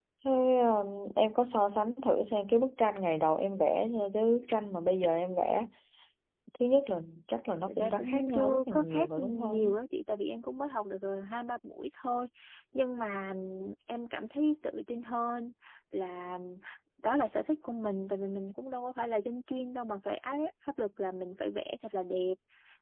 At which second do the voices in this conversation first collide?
7.7 s

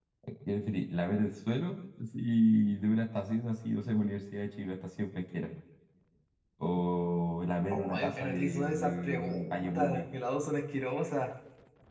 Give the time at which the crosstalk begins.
7.7 s

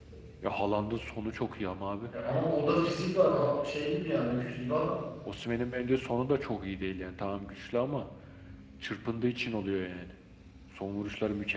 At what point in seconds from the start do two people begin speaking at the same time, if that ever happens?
none

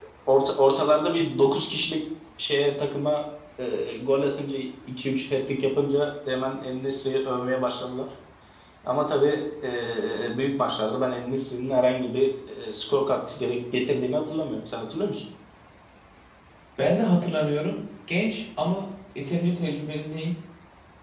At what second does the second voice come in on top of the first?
none

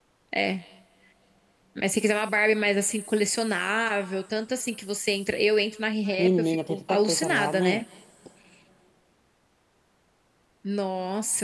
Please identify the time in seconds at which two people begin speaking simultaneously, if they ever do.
6.2 s

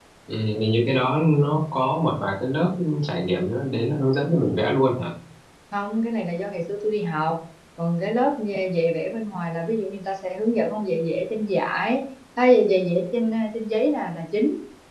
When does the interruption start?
none

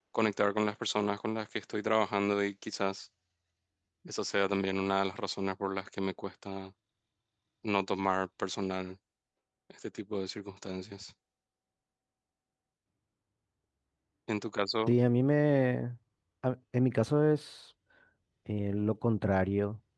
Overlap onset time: none

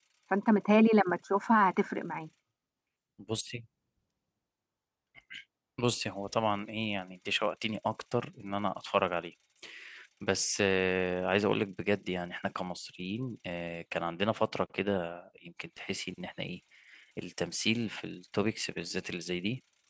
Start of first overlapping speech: none

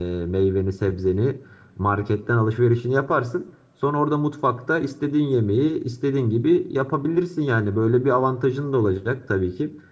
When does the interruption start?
none

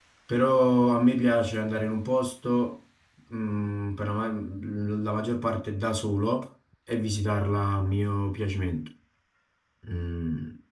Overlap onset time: none

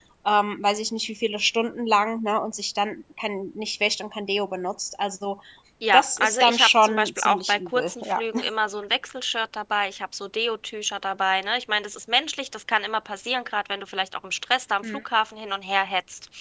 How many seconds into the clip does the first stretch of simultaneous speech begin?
5.9 s

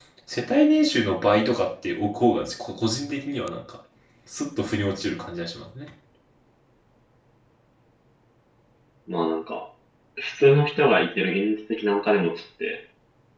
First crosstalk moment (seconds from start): none

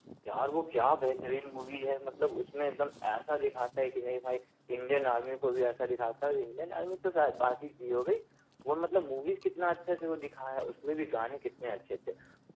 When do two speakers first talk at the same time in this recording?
none

